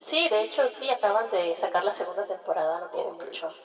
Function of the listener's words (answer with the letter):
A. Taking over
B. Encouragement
A